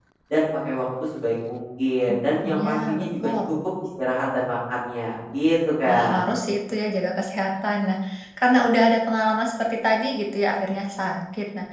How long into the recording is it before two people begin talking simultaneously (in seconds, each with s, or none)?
2.1 s